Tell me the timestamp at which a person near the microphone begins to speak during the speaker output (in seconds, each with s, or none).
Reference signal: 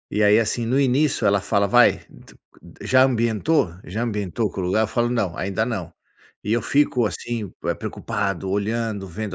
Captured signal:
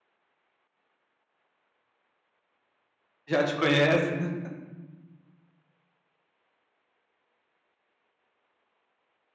3.3 s